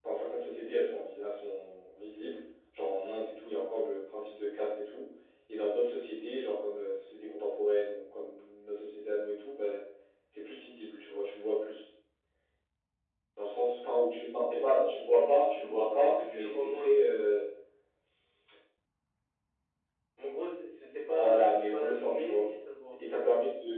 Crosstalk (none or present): present